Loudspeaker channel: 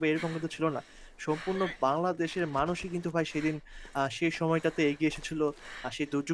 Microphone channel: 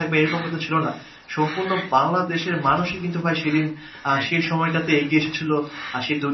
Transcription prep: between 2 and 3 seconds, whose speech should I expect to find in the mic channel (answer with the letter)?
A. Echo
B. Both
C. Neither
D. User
A